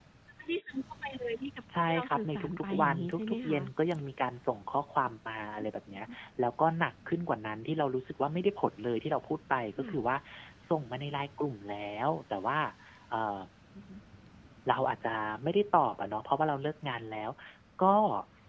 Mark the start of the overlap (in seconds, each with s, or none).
1.9 s